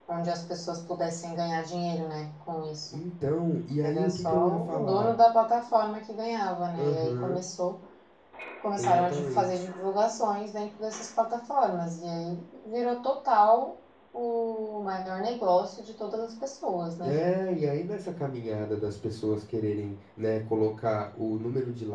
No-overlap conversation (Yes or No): No